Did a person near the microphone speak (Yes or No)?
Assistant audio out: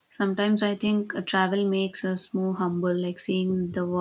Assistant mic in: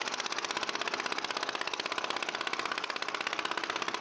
No